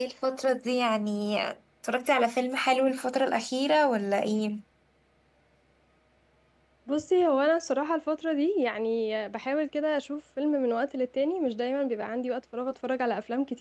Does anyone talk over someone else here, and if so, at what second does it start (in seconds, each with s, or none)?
none